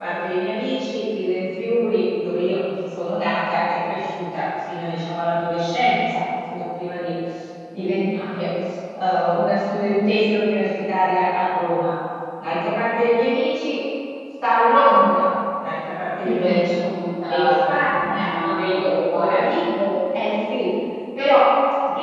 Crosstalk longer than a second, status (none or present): present